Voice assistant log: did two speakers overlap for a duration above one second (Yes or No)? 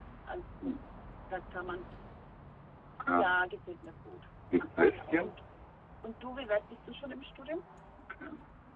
No